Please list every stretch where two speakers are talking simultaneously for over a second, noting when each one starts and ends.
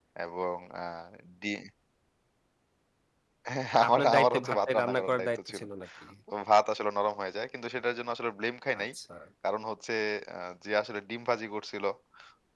3.9-5.6

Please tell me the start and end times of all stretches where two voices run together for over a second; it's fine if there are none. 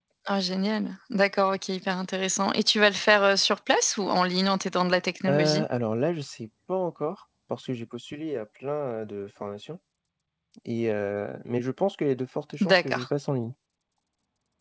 none

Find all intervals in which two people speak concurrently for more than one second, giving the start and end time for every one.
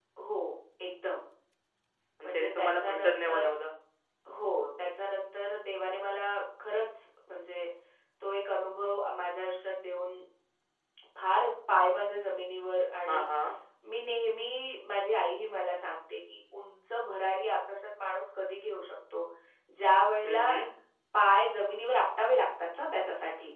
2.2-3.5

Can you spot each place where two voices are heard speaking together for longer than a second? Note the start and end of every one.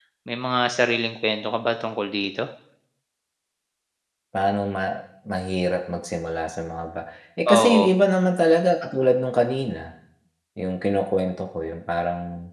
none

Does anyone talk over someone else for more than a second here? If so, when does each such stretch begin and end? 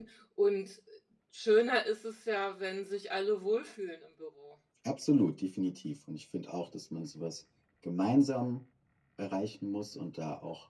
none

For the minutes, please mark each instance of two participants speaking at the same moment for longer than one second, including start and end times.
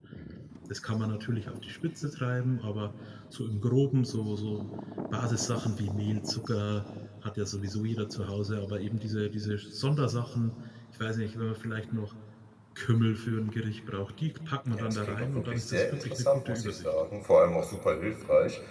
14.7-16.9

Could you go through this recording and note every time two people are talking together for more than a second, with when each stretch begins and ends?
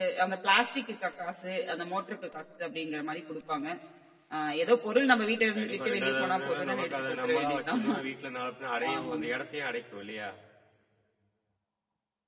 5.5-7.8

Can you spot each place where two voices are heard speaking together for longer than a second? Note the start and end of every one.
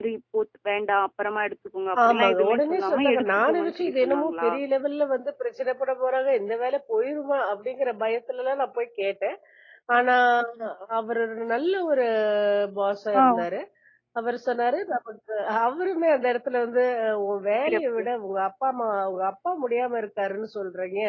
2.0-4.5

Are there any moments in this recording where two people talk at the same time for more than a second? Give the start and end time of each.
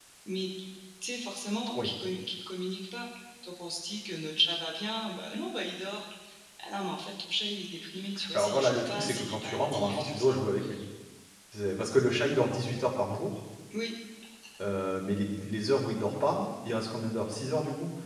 8.3-10.4

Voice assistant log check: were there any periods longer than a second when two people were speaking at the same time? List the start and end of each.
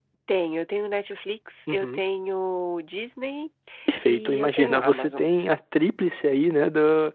4.1-5.3

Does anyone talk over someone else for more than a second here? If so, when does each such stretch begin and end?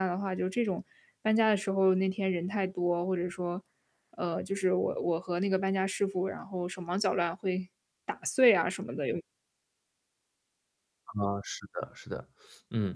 none

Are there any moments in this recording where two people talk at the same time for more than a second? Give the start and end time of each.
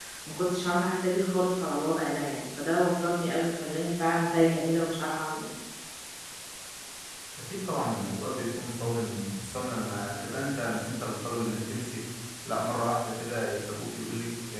none

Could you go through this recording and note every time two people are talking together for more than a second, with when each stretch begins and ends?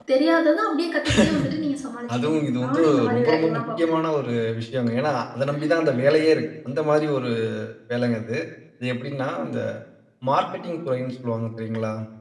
2.1-3.9

